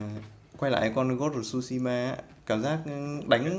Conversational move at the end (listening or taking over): listening